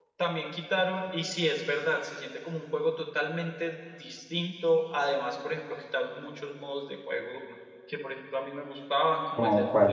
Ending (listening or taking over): listening